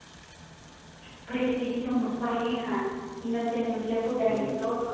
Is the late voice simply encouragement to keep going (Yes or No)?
No